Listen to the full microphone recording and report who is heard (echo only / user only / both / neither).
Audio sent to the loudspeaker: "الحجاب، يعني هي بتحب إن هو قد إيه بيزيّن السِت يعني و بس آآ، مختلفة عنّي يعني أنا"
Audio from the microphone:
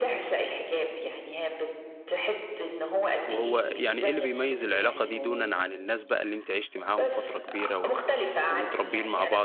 both